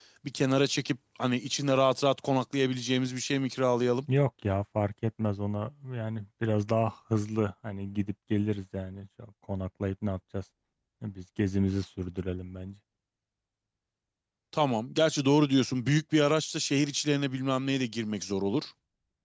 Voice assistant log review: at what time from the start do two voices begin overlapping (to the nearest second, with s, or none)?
none